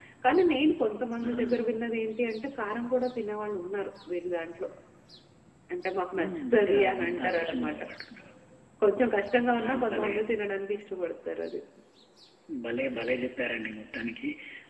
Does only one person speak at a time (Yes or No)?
No